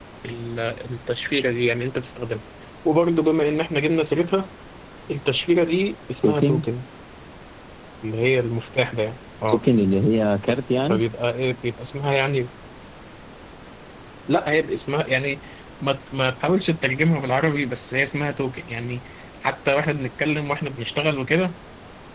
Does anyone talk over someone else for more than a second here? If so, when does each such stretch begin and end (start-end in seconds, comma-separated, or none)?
none